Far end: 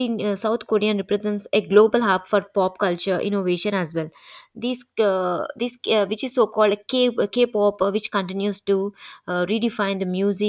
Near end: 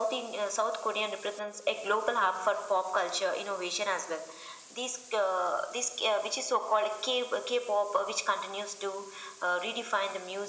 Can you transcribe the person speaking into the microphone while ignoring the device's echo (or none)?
none